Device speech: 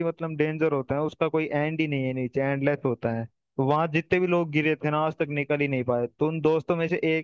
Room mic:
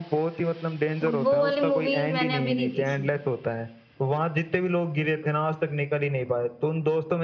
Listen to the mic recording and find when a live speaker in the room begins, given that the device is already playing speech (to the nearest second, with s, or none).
1 s